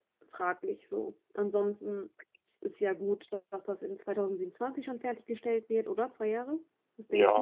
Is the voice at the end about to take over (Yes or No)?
Yes